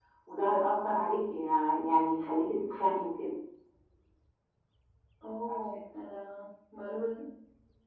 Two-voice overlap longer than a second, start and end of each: none

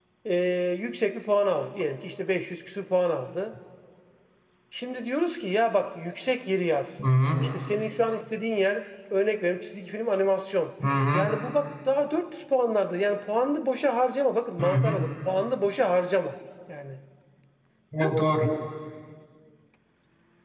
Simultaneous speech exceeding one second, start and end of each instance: none

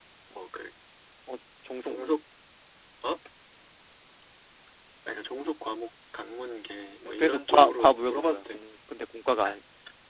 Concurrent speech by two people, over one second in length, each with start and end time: 7.1-8.6

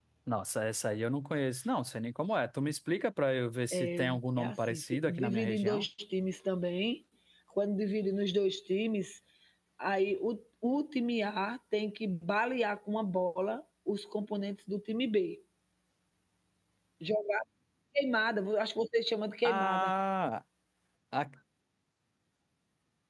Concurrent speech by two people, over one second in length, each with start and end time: 4.4-5.9

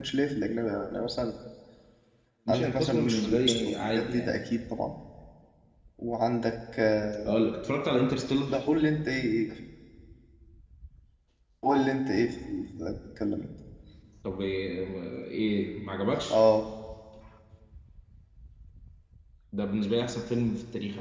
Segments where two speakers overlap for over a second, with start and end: 2.5-4.4

